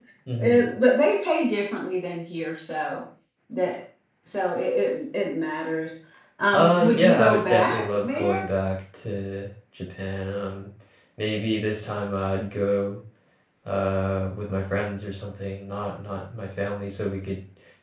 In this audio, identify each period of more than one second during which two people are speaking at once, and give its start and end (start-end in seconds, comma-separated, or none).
6.5-8.4